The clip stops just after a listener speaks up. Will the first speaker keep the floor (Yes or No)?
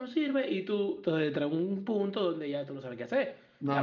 No